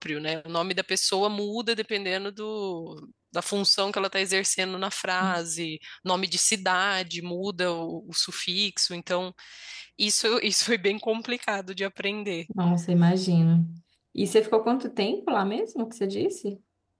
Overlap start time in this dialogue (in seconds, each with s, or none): none